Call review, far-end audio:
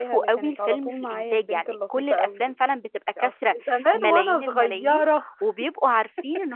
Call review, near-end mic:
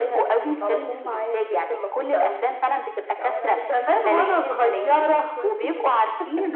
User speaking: Yes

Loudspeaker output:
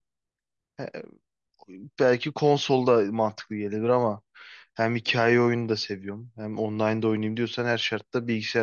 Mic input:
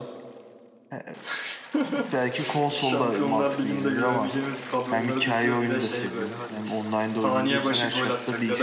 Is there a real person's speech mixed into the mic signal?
Yes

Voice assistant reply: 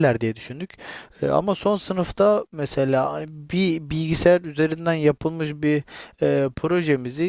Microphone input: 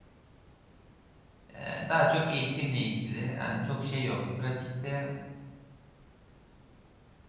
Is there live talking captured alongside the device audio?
Yes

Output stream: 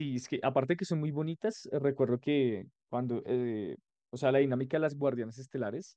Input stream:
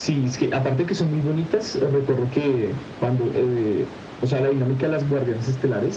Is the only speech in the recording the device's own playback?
Yes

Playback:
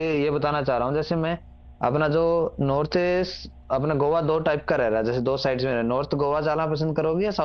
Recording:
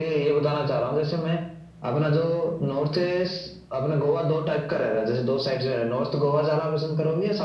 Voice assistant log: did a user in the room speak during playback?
No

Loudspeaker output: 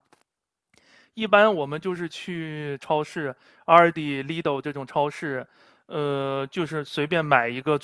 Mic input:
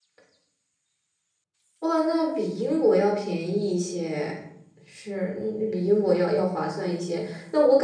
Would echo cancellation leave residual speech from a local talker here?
Yes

